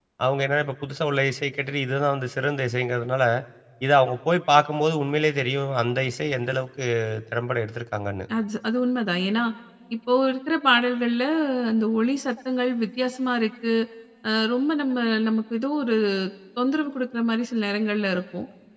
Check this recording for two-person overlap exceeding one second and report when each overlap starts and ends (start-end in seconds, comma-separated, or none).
none